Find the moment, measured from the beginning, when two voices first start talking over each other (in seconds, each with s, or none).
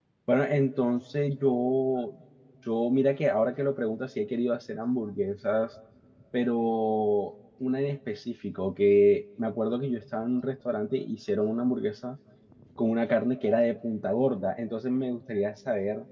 none